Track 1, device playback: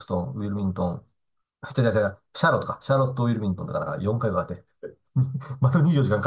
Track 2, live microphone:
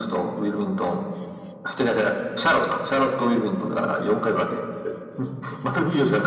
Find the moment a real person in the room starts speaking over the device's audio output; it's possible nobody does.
none

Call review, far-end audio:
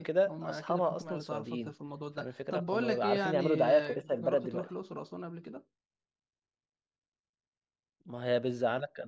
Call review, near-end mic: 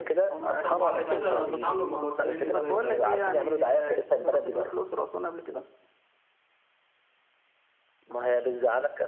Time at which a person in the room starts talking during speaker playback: 0.6 s

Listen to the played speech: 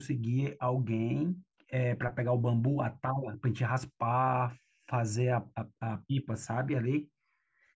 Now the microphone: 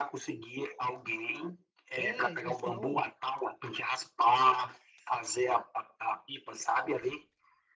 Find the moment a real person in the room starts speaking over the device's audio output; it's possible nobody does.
1.9 s

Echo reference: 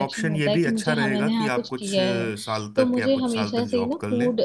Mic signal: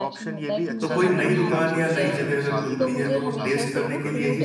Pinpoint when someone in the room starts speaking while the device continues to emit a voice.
0.8 s

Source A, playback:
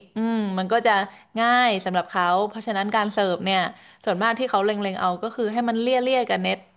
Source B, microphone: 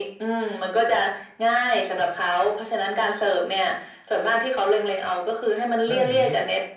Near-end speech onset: 5.8 s

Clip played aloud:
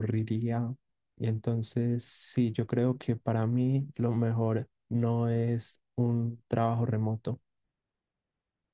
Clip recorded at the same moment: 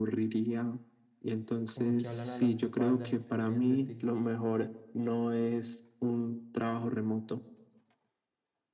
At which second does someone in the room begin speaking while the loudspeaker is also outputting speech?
1.7 s

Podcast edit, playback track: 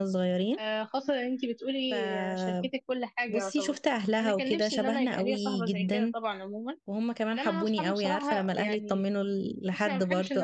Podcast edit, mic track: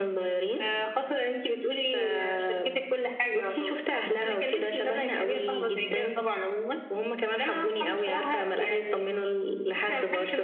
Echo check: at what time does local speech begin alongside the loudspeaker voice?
none

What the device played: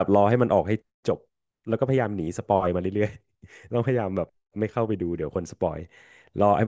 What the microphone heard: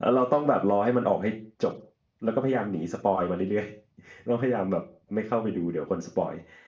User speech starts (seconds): none

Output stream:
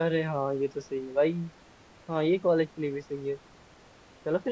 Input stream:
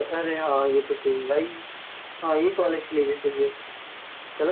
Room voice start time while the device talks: none

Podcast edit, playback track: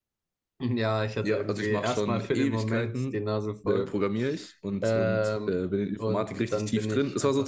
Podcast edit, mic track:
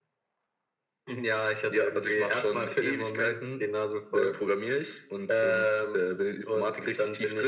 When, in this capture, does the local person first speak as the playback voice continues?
none

